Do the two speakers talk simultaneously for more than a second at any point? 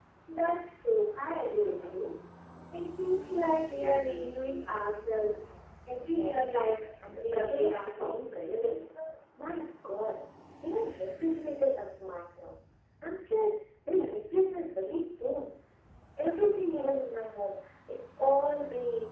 Yes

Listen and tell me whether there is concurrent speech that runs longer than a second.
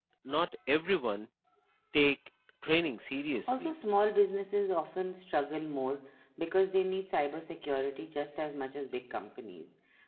No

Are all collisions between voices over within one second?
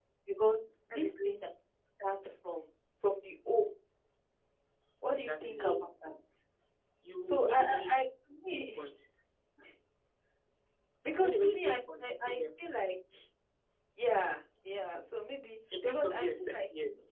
No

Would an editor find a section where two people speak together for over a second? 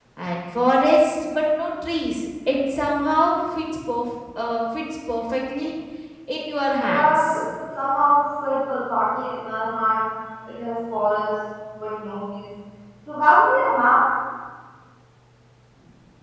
No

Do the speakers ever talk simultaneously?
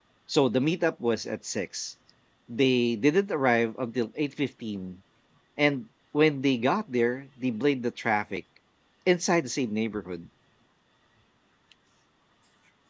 No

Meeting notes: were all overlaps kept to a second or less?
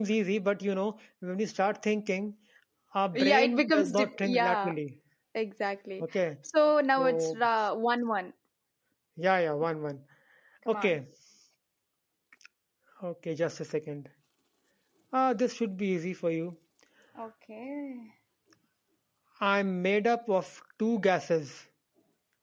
No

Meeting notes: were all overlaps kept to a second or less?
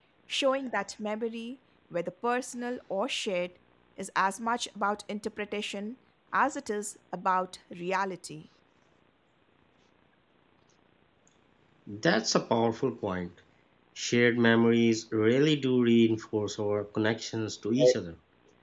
Yes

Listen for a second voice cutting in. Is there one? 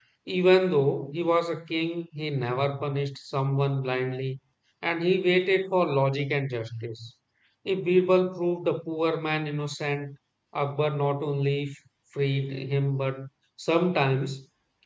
No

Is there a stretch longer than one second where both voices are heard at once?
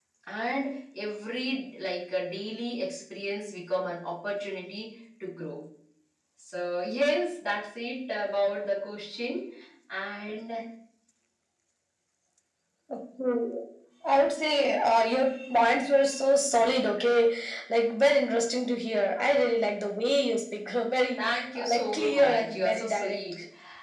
Yes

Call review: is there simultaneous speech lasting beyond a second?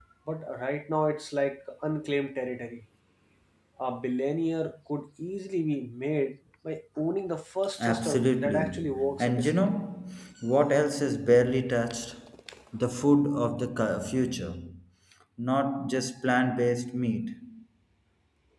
Yes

